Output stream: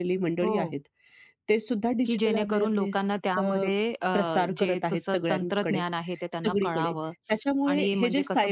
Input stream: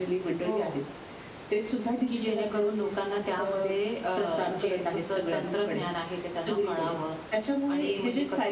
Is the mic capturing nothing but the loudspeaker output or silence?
Yes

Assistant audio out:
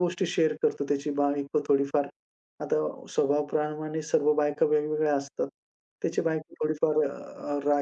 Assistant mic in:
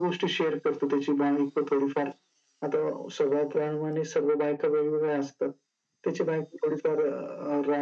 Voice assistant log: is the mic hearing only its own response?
Yes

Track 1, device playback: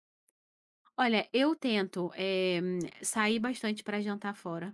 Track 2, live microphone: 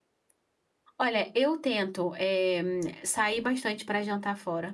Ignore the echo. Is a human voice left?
No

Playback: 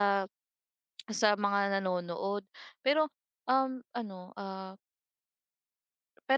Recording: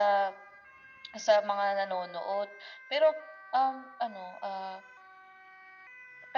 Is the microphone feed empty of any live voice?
Yes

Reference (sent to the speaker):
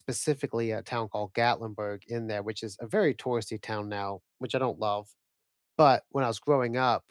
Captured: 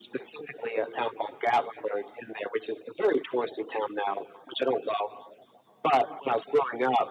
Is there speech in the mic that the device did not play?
No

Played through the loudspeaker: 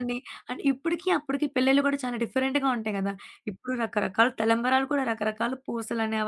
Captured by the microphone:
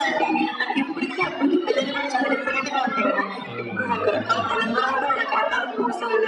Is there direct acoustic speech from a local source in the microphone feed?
Yes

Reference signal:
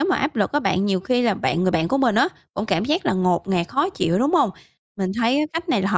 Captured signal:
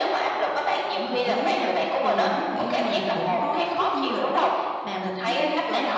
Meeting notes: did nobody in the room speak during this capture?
No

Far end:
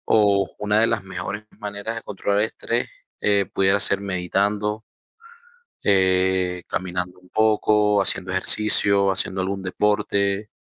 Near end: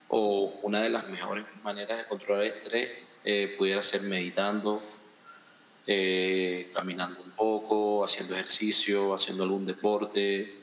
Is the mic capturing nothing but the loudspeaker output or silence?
Yes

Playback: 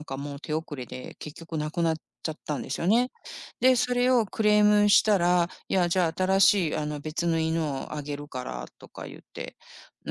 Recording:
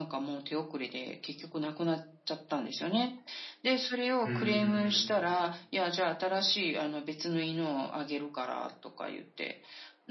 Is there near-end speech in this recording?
Yes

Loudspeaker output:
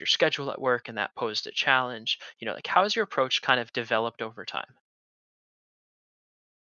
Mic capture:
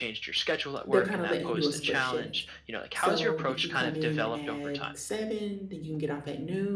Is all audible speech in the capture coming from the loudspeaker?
No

